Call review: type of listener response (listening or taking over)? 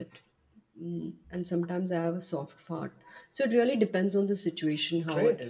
taking over